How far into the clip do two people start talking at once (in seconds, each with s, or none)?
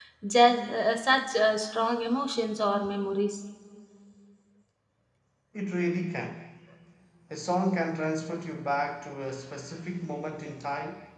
none